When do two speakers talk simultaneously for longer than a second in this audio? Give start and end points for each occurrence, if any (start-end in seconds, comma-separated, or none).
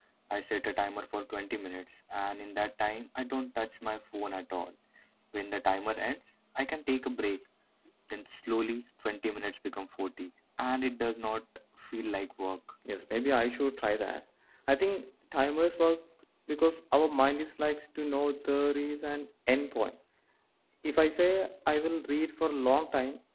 none